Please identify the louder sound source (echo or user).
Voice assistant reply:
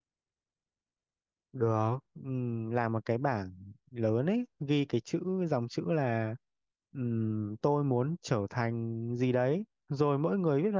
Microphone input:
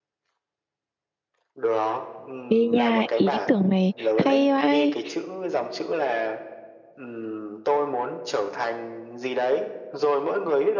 user